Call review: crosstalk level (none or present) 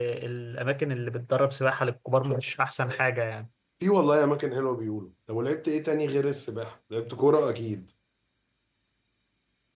none